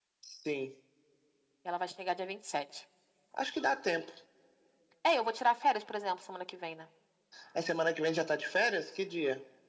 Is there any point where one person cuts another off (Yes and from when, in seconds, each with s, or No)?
No